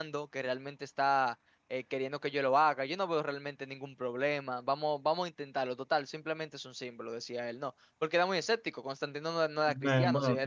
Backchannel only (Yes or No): No